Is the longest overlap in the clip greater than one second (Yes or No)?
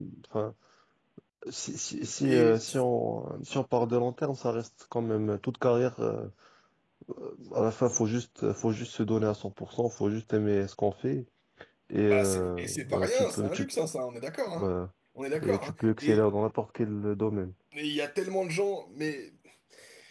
Yes